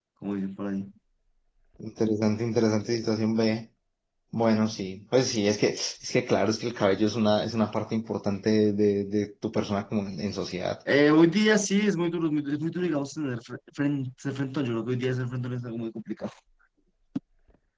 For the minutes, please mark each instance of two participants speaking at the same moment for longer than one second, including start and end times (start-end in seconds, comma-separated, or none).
none